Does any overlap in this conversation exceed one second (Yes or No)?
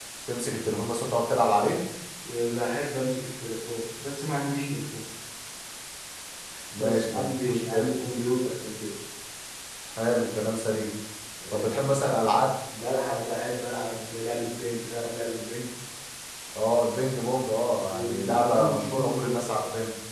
Yes